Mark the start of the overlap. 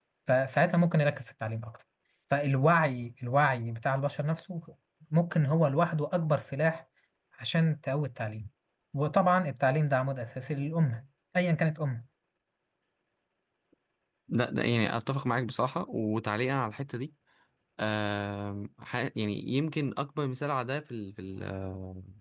none

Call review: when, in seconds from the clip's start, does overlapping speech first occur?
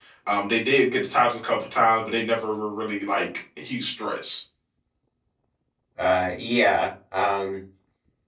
none

